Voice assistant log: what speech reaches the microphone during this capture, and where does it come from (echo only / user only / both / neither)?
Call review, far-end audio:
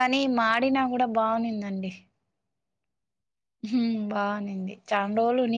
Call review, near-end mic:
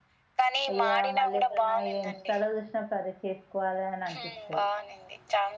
both